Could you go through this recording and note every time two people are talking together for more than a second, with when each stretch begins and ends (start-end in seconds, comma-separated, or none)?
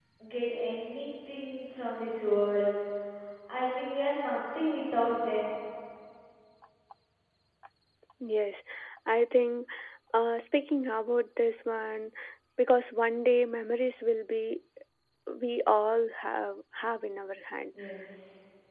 none